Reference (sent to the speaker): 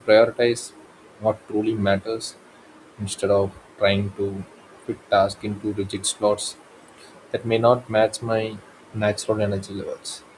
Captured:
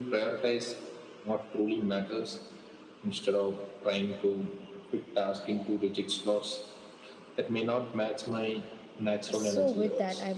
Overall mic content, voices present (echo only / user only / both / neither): both